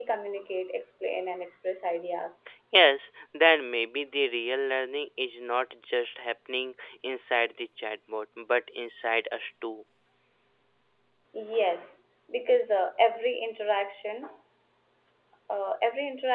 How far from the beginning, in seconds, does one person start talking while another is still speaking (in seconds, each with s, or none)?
none